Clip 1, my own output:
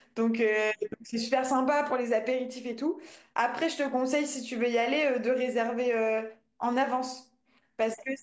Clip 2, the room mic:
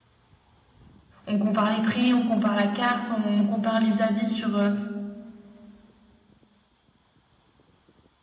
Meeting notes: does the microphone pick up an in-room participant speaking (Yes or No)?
Yes